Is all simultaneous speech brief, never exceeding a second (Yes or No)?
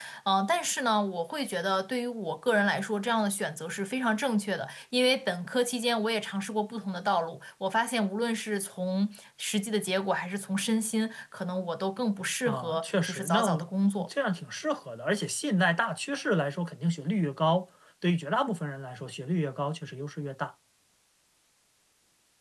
No